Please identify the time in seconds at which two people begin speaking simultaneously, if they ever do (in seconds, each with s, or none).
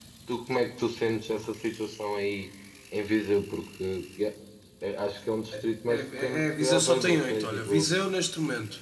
5.9 s